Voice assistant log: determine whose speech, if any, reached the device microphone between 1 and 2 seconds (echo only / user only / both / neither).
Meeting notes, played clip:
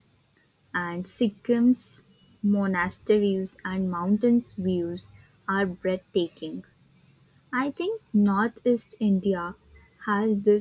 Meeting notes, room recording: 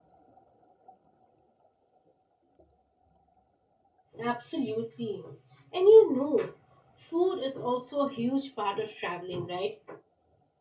neither